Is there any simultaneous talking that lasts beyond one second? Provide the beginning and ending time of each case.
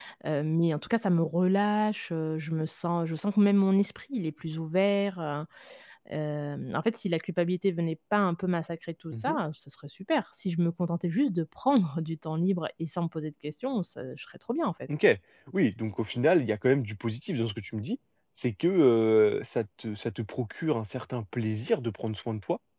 none

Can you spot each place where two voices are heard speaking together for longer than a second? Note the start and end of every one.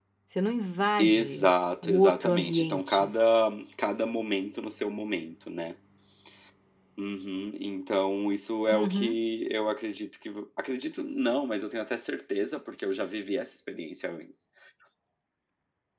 1.8-3.1

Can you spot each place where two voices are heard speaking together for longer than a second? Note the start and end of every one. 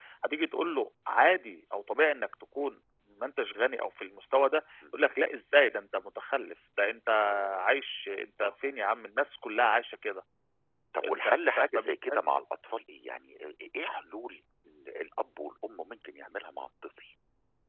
11.1-12.3

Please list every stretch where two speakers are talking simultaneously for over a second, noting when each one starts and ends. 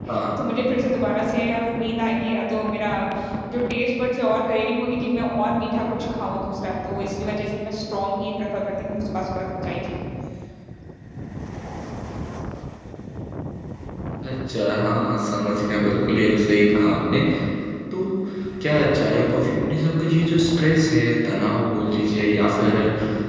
none

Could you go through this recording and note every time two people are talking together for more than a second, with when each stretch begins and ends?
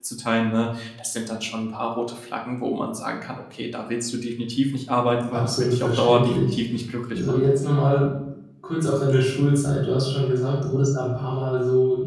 5.3-6.6

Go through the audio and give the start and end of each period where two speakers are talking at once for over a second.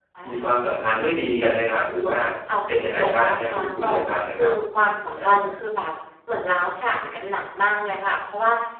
2.8-4.5

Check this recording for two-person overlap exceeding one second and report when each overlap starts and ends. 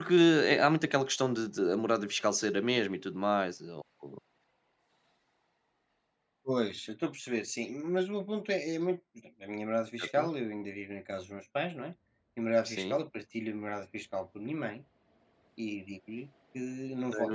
none

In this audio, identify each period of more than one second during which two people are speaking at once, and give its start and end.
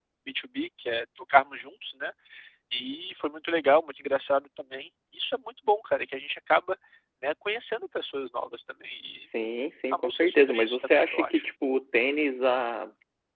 10.0-11.4

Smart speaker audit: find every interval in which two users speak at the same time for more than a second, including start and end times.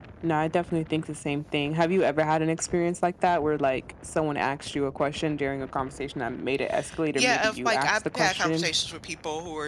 7.2-8.7

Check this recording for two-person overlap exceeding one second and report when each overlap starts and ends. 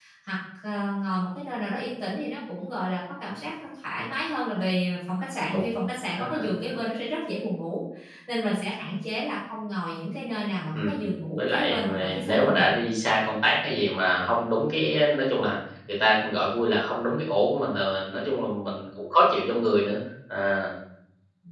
11.4-12.7

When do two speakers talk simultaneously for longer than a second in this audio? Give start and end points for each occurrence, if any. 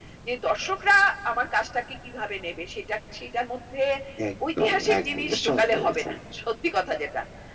4.6-6.1

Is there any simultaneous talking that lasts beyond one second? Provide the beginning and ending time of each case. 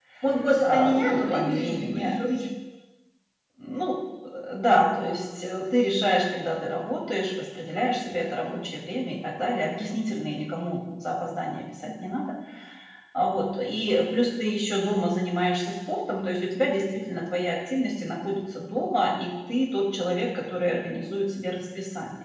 0.6-2.2

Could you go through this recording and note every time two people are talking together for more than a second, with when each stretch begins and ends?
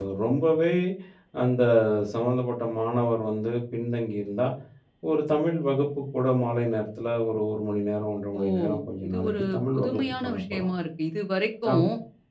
9.1-10.7

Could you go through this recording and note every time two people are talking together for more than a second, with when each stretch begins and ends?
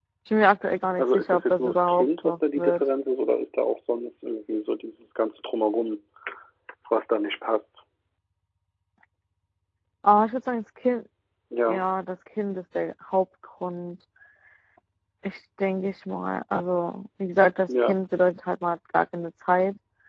1.0-2.9

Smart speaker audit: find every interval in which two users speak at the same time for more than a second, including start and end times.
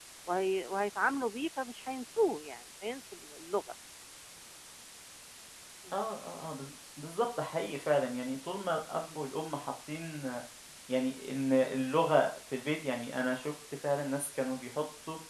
none

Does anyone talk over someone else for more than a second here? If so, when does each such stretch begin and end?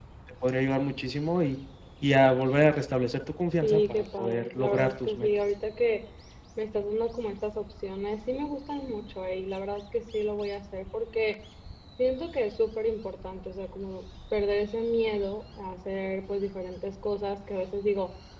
3.6-5.3

